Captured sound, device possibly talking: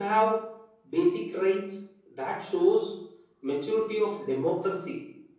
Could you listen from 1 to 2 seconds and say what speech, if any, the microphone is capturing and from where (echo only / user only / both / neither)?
echo only